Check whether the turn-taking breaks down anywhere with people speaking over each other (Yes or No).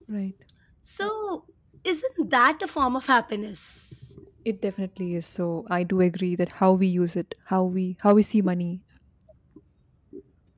No